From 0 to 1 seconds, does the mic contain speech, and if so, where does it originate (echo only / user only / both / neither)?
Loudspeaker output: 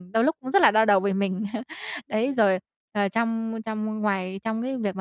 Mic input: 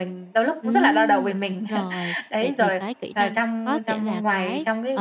both